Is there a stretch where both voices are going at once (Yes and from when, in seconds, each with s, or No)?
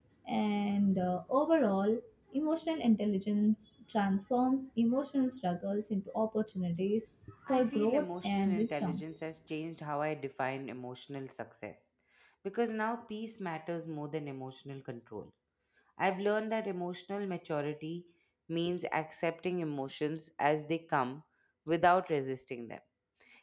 Yes, from 7.5 s